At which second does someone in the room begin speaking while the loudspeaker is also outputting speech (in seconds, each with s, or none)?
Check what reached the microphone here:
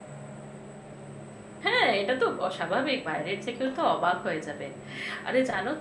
1.6 s